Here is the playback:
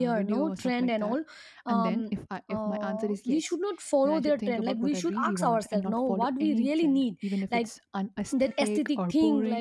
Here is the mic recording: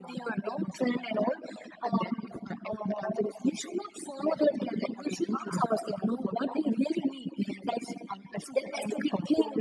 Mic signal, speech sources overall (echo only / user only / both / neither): echo only